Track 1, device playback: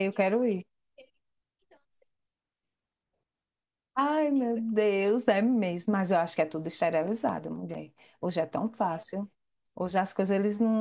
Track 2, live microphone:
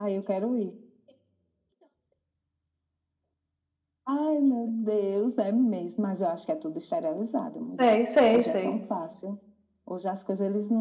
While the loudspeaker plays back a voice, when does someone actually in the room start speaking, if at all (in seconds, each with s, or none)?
7.7 s